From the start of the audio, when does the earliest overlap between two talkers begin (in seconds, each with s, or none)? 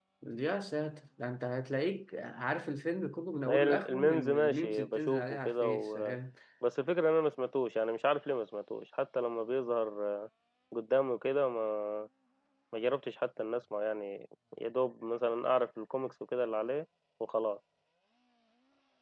3.5 s